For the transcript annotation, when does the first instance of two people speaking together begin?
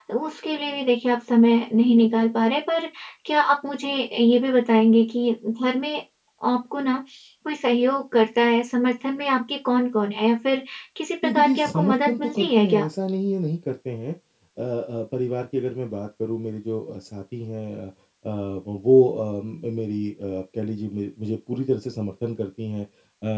11.2 s

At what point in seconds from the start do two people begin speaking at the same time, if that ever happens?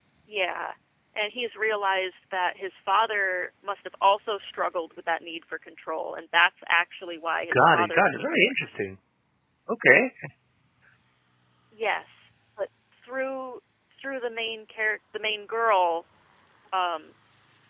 7.5 s

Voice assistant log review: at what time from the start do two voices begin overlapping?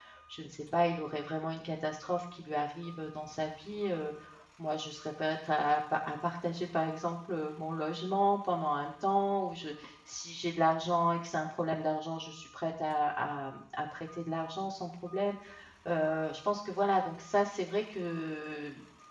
none

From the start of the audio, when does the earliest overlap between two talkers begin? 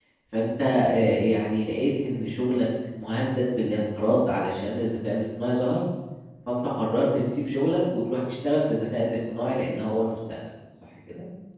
none

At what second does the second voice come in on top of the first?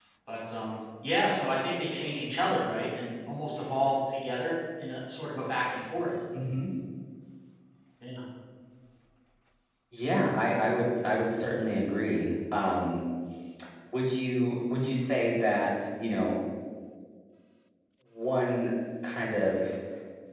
none

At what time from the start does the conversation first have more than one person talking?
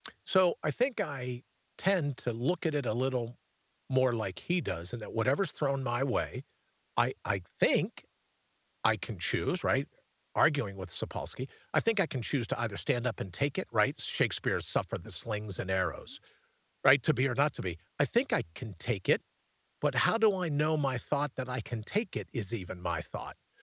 none

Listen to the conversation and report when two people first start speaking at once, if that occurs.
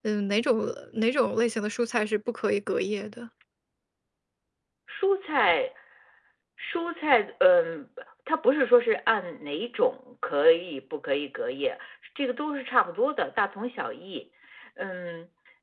none

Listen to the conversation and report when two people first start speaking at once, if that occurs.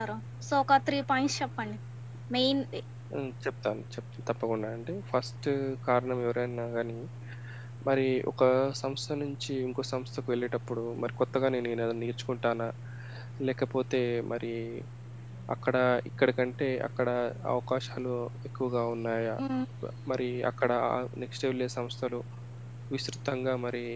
none

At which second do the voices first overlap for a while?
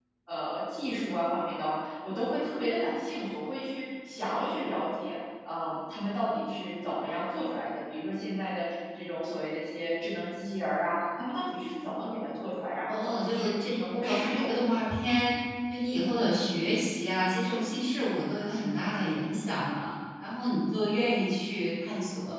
12.9 s

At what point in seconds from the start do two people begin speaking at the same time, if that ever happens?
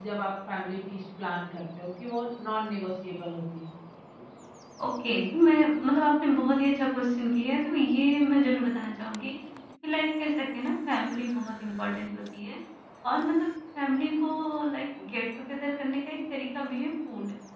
none

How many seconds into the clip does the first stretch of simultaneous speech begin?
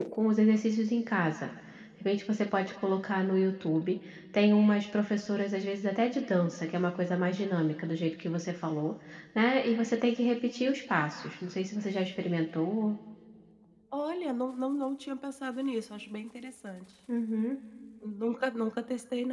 none

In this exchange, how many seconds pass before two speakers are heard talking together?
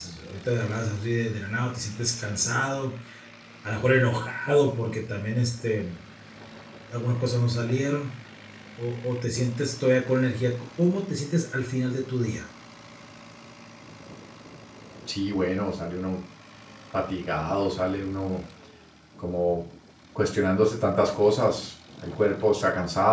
none

